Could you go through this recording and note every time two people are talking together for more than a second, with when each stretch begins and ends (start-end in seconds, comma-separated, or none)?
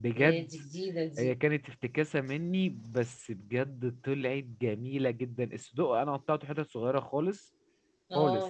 none